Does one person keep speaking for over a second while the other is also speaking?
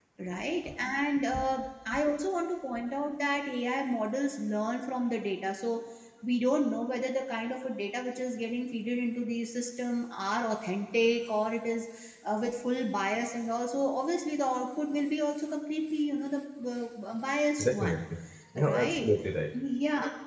No

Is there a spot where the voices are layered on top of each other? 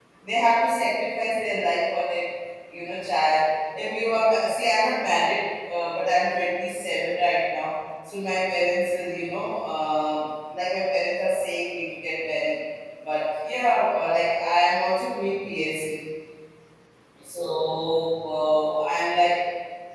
No

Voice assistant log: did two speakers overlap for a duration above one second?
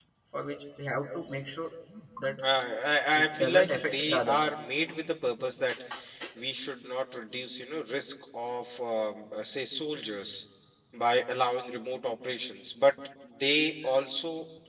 Yes, from 3.1 s

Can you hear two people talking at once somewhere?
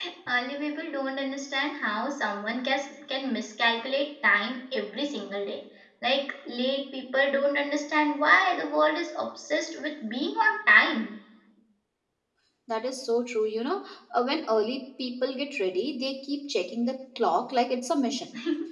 No

